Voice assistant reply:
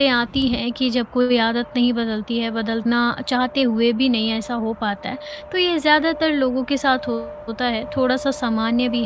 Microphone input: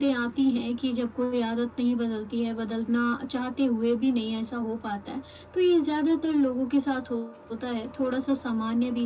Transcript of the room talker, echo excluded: none

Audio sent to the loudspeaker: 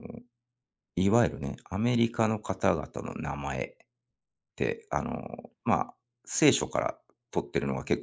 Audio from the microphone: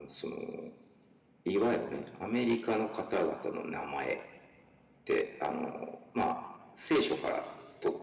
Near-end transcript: none

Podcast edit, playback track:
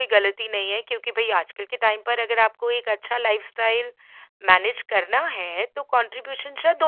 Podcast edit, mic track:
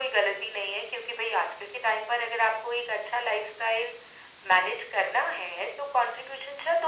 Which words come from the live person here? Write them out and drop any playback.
none

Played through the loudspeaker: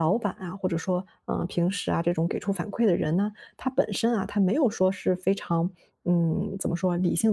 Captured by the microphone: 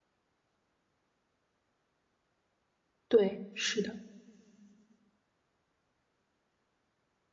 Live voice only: 对，是的，

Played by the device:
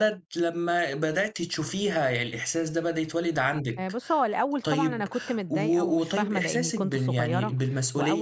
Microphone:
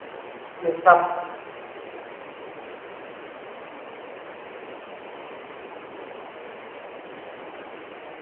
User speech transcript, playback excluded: بالضبط.

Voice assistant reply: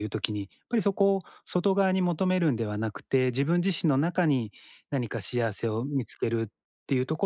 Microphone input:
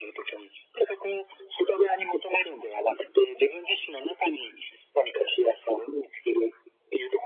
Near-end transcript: none

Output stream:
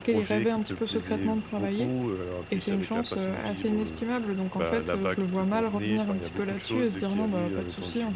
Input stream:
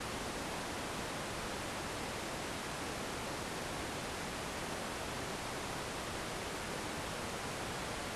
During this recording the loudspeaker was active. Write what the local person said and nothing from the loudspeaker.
none

